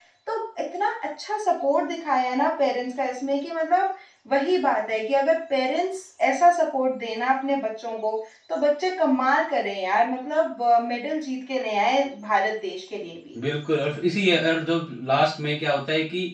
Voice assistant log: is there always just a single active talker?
Yes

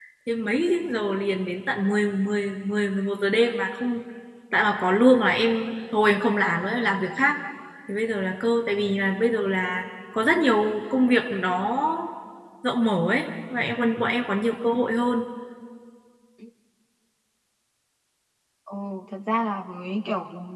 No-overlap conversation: Yes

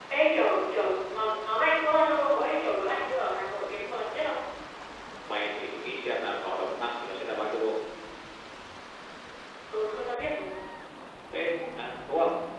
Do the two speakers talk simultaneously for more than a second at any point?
No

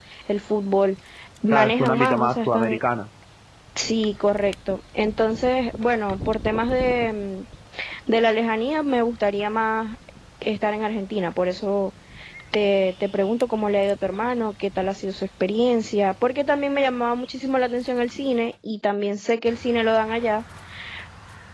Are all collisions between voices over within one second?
No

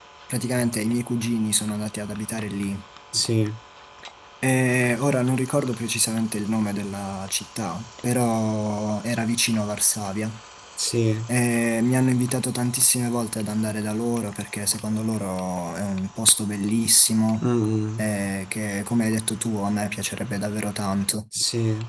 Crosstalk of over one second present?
No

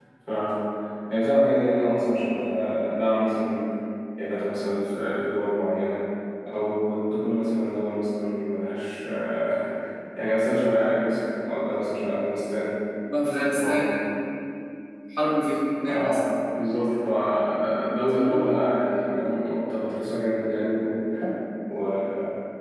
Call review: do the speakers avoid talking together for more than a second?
Yes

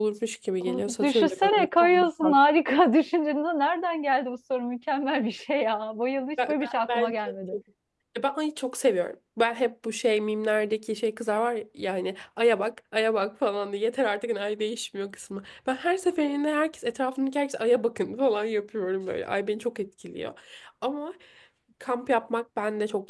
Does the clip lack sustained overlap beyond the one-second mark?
No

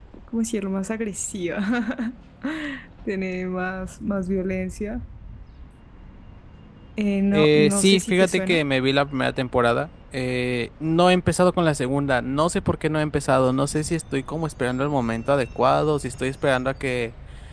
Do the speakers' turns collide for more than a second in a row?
Yes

